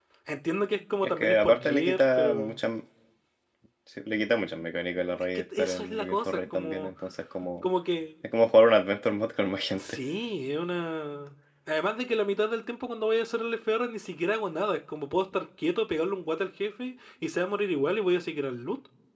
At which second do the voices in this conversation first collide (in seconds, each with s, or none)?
1.0 s